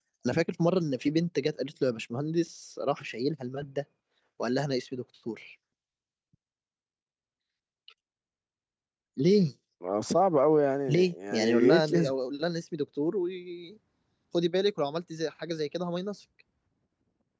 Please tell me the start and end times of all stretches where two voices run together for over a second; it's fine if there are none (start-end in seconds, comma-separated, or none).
10.9-12.1